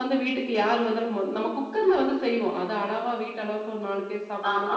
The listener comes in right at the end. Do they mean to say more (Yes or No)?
No